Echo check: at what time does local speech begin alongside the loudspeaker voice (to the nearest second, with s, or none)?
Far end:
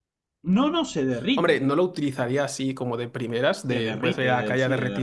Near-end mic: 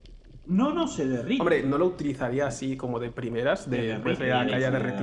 4 s